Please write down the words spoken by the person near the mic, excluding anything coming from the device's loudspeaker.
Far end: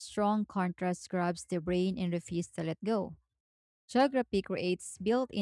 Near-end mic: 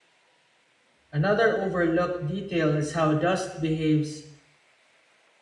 Another overlooked detail is how dust behaves

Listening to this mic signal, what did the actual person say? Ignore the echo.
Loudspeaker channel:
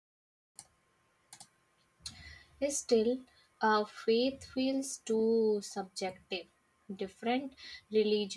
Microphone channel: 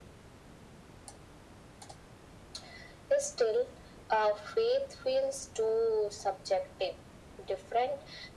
none

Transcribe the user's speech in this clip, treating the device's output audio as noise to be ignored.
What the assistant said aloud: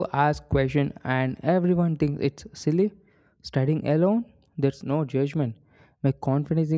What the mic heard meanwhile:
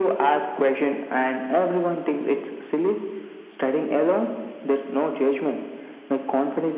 none

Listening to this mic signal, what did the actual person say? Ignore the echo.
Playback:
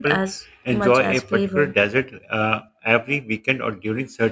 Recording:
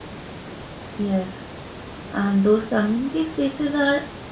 Yes. And those community spaces are

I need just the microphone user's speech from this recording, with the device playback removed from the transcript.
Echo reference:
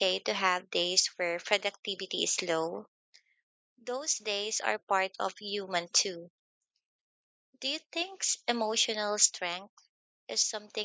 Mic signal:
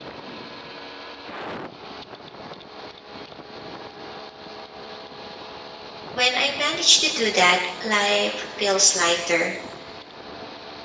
When I manage to do that, life feels lighter.

